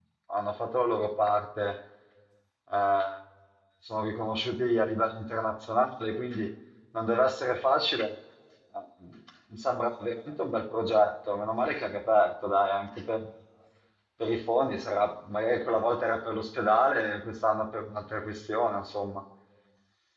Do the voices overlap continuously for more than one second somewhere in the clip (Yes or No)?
No